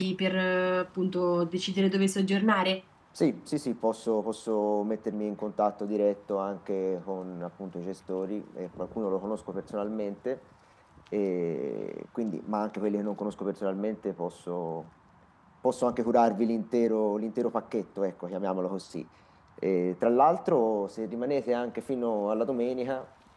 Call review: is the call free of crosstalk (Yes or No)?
Yes